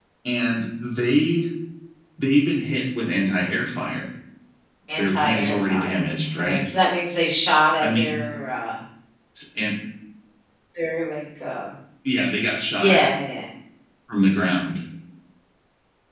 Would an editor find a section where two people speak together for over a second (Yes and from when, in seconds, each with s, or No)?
Yes, from 5.0 s